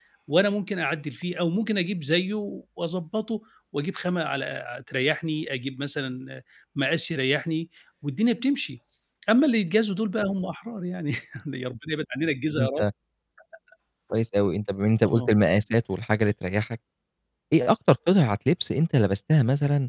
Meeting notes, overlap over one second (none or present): none